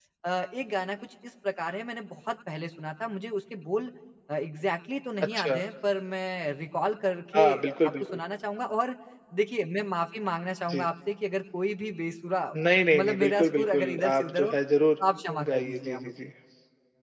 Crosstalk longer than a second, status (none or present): present